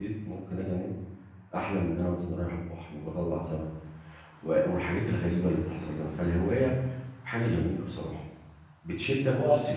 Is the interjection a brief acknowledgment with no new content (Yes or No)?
Yes